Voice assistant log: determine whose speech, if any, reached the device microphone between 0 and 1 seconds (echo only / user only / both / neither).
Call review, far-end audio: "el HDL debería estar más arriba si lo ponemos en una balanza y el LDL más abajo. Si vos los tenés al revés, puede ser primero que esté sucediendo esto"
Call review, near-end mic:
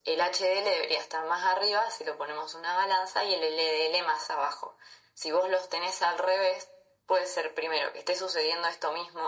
echo only